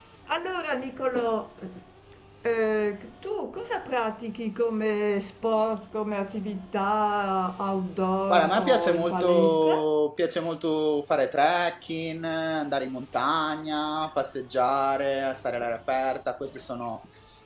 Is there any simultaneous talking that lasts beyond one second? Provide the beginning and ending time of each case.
8.3-9.9

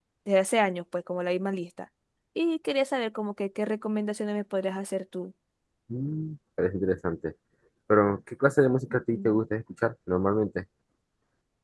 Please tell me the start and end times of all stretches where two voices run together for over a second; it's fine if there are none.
none

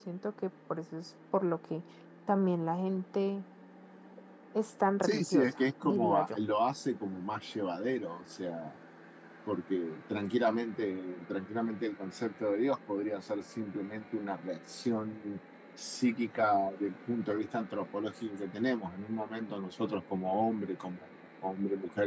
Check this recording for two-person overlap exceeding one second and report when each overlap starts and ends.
5.0-6.4

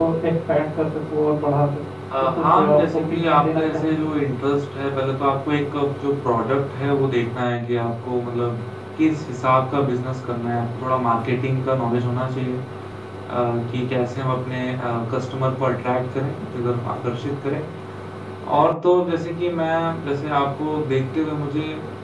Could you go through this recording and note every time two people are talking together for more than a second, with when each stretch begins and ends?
2.4-4.0

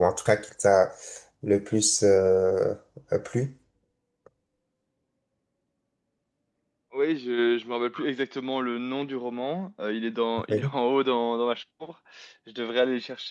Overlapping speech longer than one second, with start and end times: none

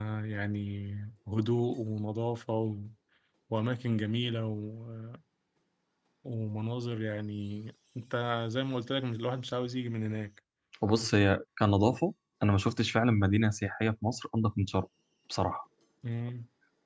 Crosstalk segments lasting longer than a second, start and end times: none

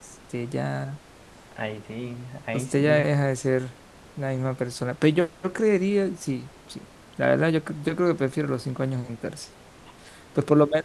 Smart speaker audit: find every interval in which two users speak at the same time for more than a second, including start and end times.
none

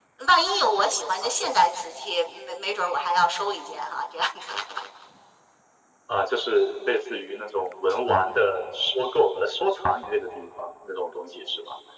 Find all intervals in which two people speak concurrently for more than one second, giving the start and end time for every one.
none

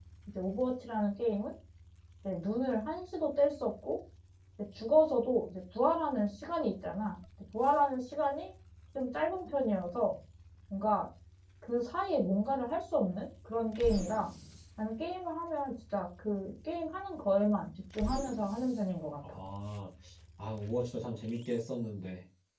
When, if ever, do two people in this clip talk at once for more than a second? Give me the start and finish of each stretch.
none

